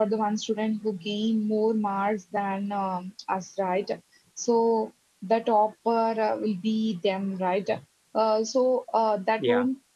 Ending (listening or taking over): listening